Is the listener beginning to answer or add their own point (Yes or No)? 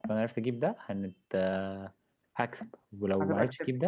No